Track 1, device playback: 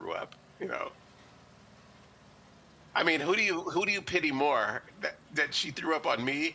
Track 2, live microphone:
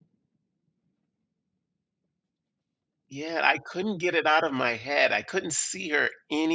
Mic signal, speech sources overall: user only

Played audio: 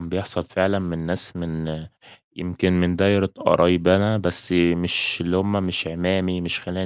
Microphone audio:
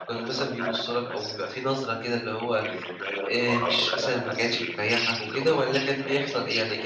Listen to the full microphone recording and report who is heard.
both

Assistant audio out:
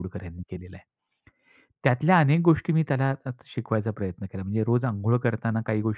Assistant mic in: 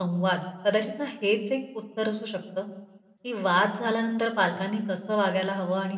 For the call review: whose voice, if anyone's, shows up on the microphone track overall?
user only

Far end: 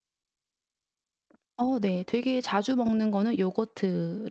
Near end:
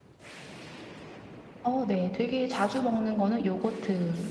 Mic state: echo only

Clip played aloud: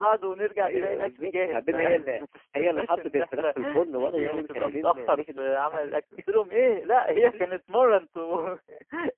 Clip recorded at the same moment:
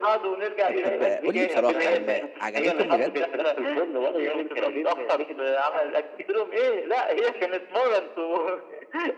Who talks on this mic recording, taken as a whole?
both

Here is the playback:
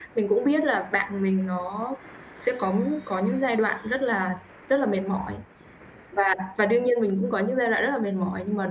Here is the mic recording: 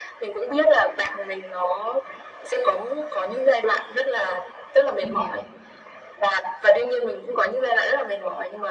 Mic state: both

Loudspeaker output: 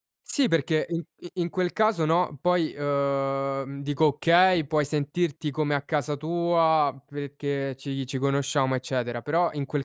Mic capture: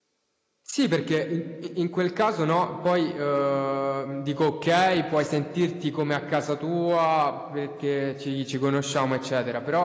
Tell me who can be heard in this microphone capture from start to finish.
echo only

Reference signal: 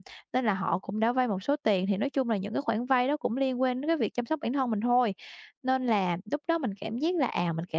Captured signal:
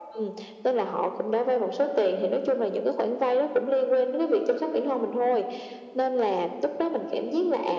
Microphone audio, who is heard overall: echo only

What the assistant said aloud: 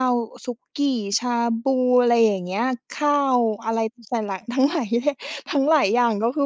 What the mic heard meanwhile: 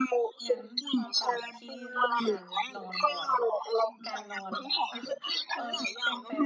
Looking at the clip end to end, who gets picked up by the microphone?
both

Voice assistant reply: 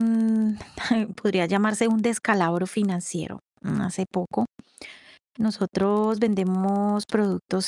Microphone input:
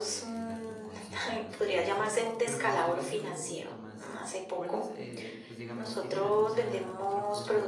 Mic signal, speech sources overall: both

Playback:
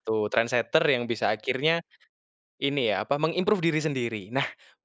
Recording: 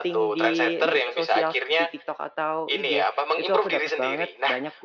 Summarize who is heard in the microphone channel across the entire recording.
both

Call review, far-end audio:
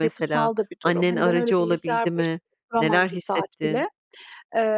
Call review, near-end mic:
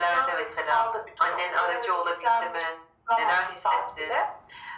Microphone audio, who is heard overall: echo only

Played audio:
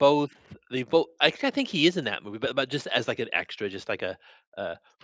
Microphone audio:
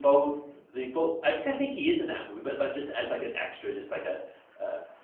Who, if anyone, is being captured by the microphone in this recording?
echo only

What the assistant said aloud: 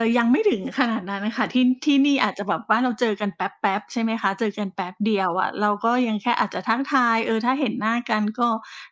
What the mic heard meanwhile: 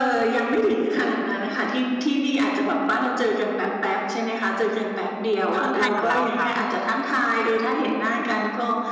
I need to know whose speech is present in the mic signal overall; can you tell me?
both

